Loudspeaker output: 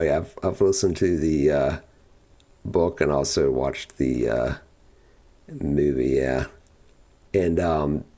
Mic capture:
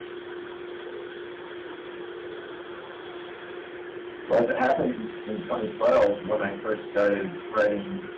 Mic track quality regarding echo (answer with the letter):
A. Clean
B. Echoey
A